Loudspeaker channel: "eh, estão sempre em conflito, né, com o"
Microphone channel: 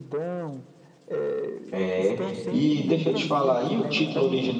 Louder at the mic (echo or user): user